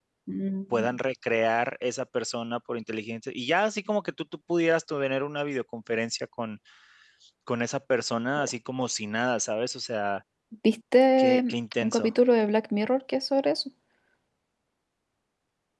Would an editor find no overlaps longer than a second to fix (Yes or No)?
Yes